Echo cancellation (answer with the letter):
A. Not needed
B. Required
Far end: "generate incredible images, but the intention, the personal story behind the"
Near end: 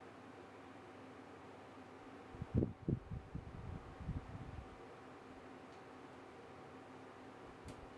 A